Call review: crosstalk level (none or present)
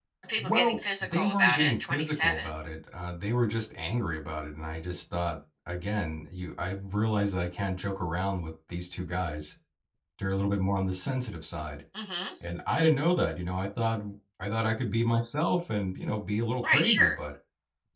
present